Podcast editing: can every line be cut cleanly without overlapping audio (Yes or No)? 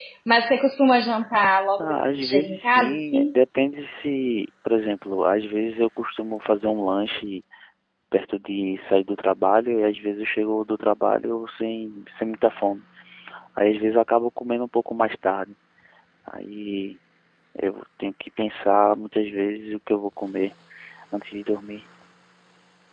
No